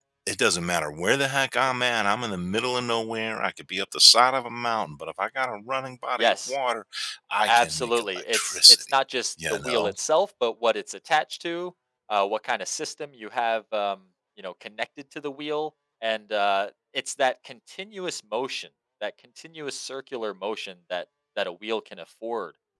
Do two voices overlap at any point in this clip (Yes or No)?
Yes